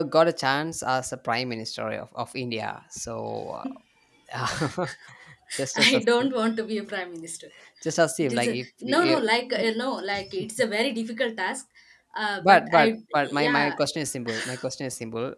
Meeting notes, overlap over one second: present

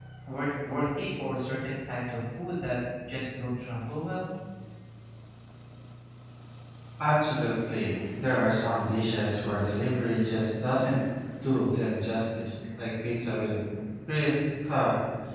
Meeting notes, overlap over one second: none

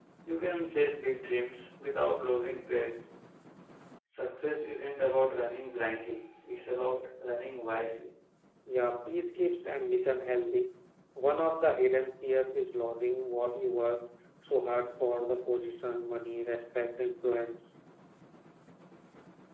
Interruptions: none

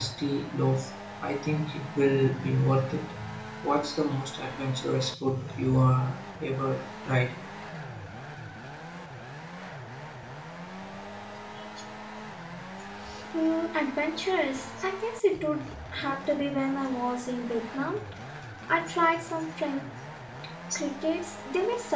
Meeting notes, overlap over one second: none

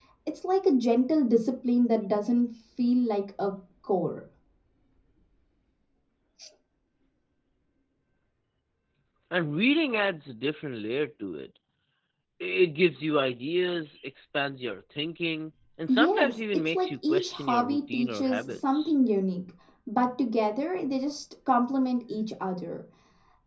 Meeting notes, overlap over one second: present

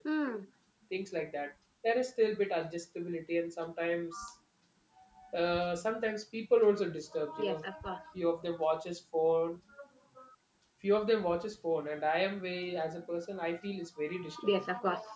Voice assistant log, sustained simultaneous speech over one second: none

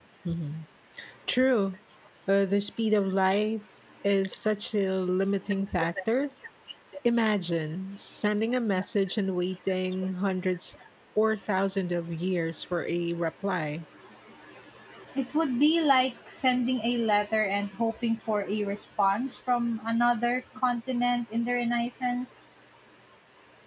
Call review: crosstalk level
none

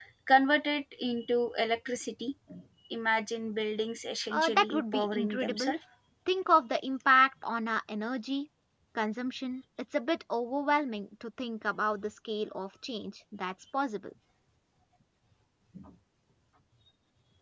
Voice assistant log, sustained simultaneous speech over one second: present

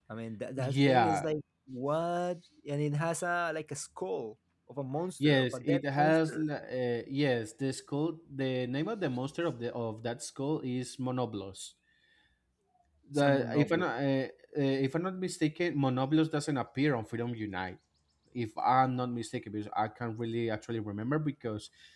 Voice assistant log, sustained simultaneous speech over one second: present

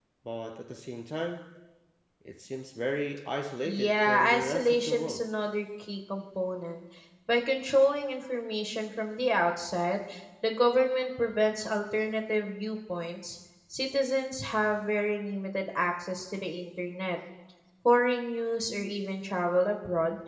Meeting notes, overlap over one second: present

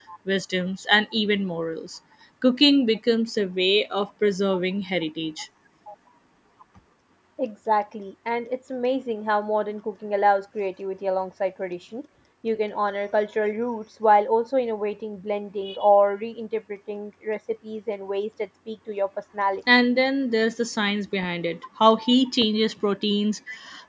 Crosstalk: none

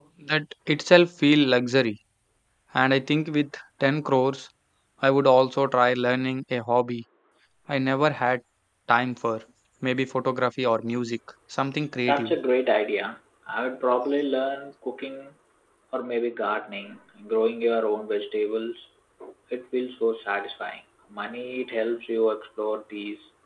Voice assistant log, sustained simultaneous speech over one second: none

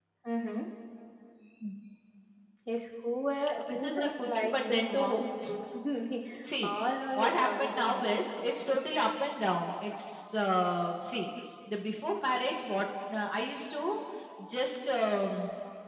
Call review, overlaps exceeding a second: present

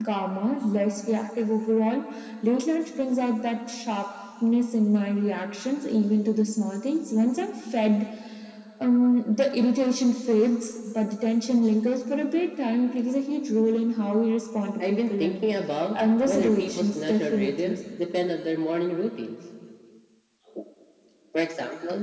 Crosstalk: present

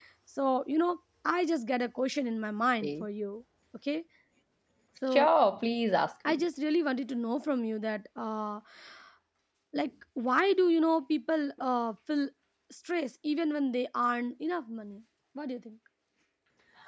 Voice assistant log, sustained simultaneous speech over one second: none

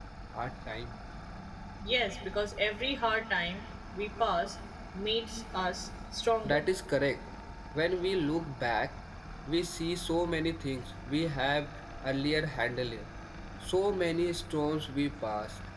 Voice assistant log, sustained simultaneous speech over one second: none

